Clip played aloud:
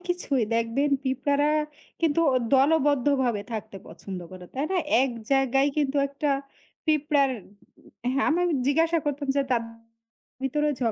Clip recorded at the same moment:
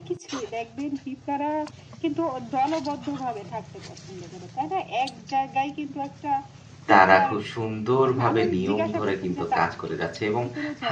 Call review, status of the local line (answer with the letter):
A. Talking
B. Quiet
A